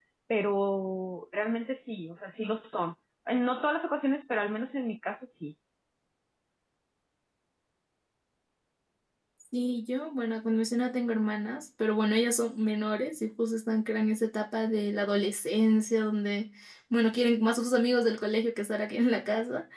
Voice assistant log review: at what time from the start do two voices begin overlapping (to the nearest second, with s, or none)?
none